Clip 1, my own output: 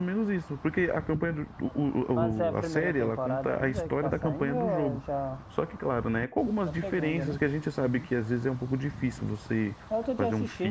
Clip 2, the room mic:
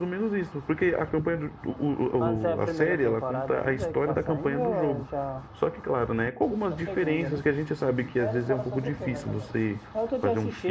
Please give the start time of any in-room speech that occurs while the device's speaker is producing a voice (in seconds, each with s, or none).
8.2 s